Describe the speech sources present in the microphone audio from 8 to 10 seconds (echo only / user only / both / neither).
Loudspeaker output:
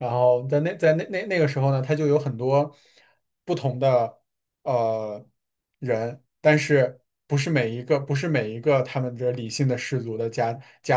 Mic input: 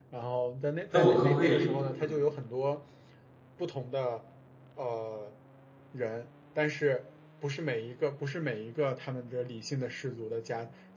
echo only